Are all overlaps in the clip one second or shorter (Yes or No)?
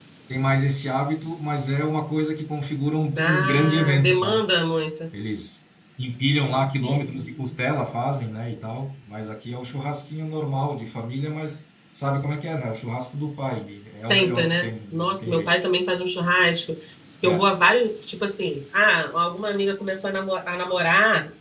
No